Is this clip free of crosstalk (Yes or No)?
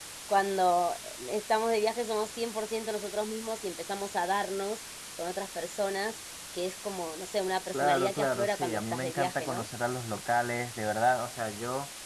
No